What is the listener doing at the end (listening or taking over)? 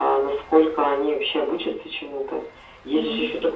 listening